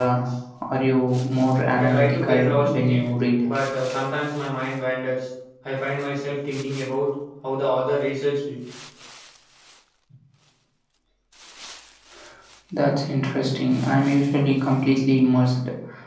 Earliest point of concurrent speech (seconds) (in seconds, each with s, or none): 1.8 s